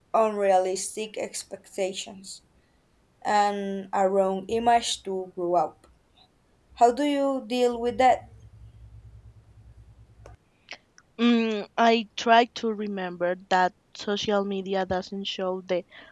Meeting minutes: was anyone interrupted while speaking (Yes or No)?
No